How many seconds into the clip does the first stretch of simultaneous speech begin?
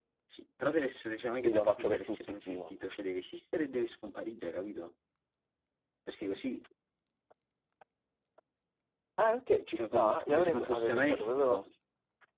1 s

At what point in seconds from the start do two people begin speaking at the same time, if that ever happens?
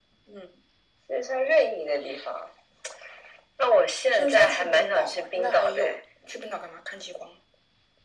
4 s

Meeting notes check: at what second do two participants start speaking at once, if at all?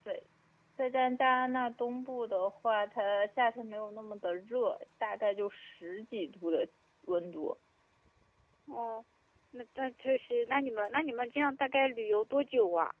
none

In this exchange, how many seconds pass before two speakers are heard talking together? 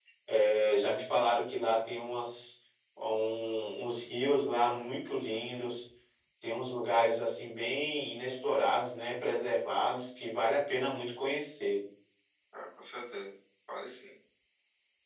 none

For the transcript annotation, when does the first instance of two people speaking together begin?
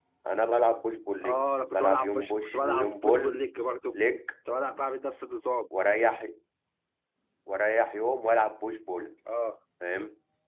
1 s

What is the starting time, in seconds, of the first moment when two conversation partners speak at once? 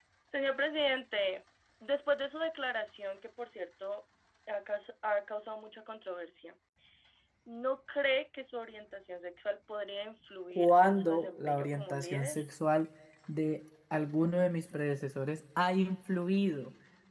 11 s

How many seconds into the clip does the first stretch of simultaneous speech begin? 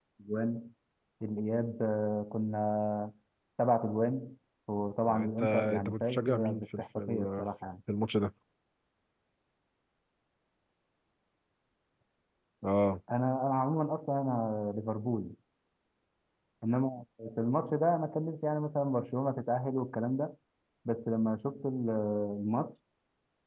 5 s

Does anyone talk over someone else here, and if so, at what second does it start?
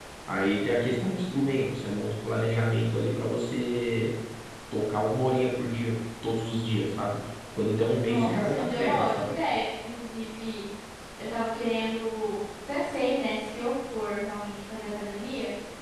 8 s

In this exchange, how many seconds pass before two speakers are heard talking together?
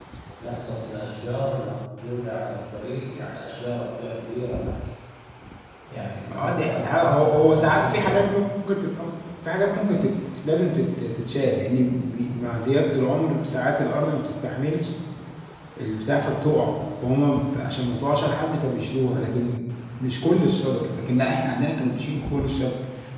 6 s

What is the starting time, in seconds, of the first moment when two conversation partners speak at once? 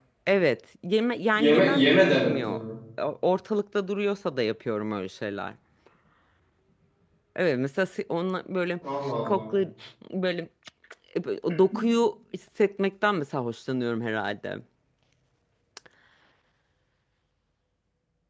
1 s

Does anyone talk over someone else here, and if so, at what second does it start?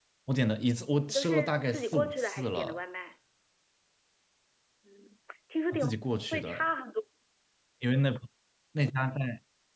1 s

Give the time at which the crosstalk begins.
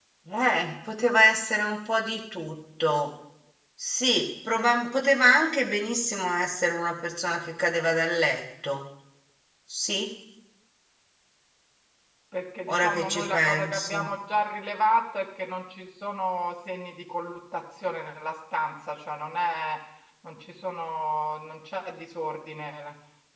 13 s

